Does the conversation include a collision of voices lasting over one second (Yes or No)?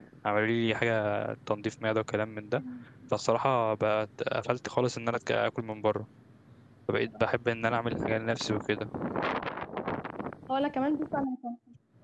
No